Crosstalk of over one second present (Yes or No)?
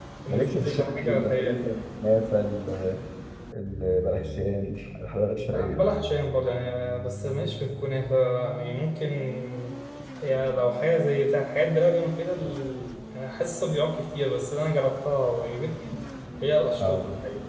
Yes